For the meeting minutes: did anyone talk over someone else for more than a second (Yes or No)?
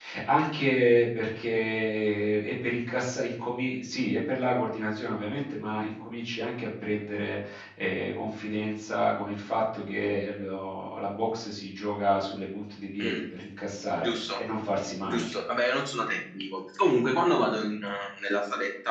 No